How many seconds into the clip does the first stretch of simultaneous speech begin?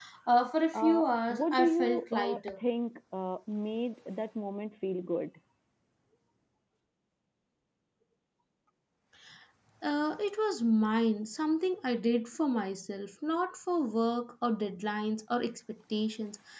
0.7 s

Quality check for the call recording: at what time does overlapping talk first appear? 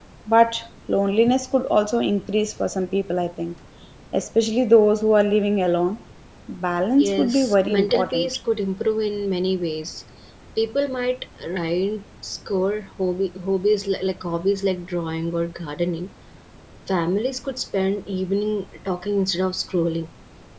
7.0 s

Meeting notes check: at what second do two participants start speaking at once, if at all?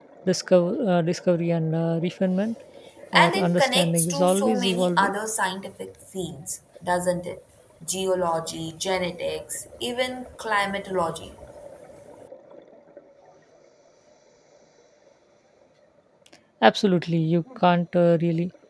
3.1 s

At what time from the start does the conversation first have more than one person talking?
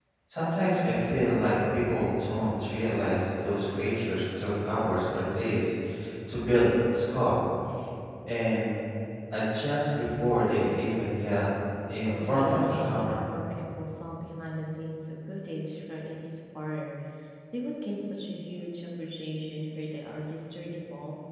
12.0 s

